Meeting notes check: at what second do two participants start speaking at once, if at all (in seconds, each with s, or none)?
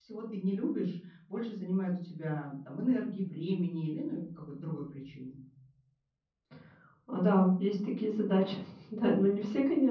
none